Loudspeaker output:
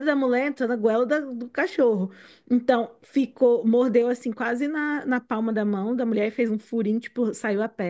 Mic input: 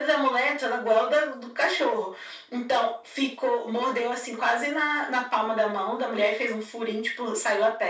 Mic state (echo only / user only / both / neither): echo only